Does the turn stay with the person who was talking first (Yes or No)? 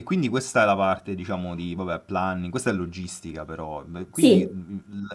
Yes